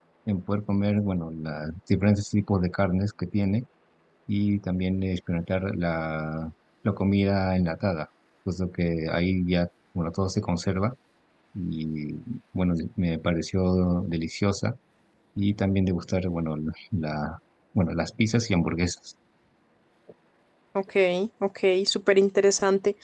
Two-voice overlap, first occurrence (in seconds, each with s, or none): none